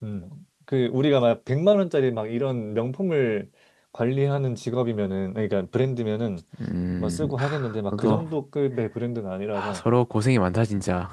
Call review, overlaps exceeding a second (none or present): present